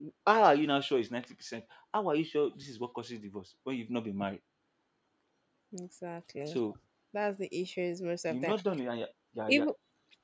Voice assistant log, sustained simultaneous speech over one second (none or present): none